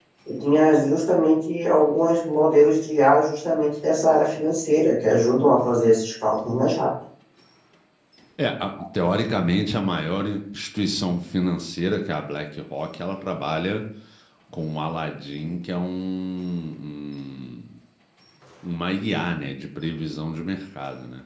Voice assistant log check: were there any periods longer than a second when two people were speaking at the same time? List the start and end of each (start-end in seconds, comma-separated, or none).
none